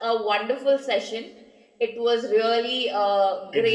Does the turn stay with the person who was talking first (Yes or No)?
Yes